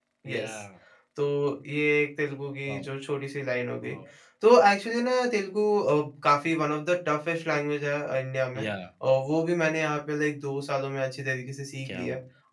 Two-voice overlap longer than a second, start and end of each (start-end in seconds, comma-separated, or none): none